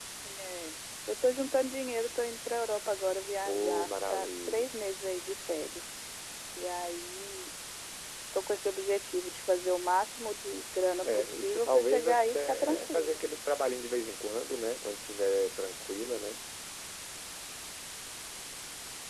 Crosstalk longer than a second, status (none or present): present